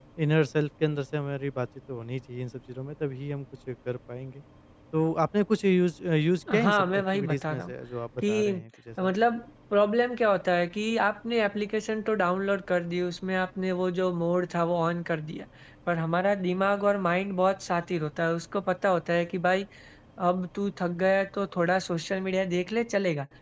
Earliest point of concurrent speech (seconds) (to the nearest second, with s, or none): 7 s